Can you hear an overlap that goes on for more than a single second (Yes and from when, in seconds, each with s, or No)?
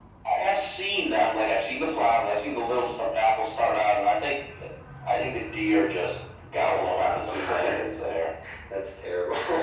Yes, from 6.6 s